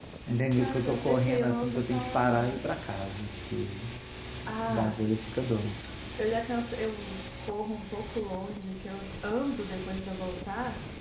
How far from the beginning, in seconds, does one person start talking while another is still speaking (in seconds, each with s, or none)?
0.5 s